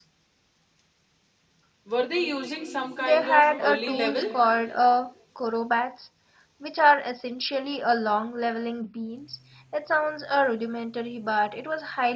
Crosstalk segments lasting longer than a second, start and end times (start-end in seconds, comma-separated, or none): 3.0-4.2